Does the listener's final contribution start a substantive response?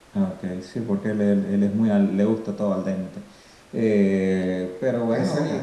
No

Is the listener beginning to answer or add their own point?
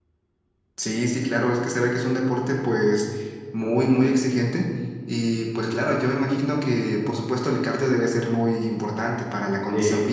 No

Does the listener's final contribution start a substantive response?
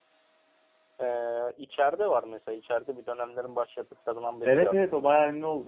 Yes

